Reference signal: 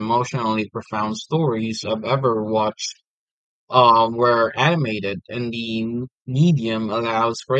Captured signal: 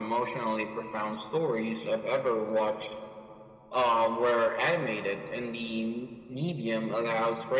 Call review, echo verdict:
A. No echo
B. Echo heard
B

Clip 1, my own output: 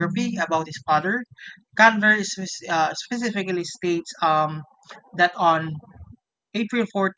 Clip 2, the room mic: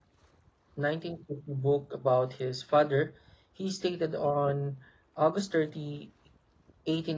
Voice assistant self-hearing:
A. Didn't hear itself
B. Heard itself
A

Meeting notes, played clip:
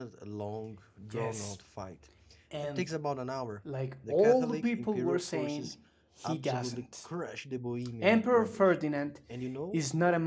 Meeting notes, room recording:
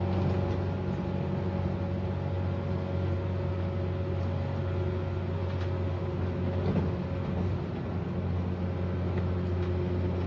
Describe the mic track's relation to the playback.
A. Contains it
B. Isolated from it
B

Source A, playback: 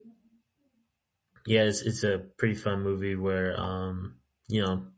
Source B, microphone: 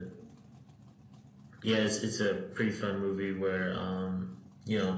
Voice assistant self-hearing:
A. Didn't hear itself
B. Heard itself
B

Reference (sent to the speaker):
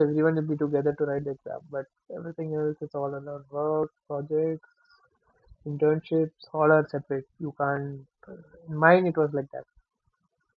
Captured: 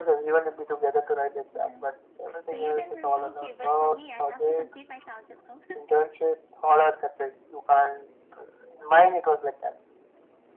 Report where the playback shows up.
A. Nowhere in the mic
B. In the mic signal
B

